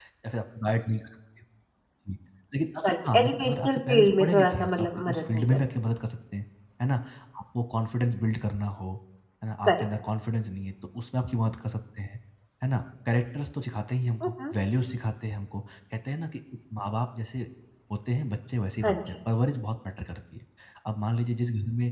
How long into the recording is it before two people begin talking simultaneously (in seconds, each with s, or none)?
2.8 s